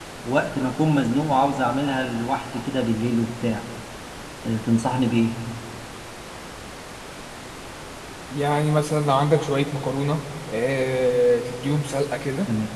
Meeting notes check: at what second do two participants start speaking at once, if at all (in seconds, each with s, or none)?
none